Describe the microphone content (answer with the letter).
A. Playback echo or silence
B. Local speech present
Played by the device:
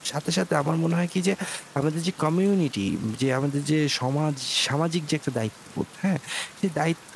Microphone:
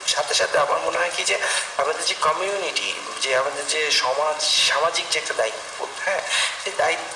A